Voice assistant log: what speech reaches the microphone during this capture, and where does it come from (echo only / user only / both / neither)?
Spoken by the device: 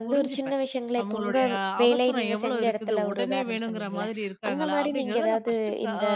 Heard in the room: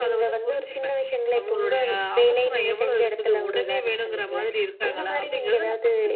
echo only